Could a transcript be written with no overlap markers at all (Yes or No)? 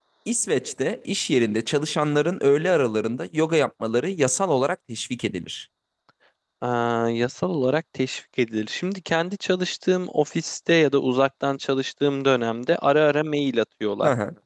Yes